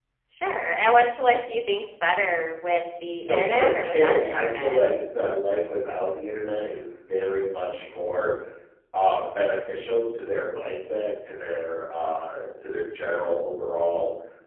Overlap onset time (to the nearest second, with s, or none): 3 s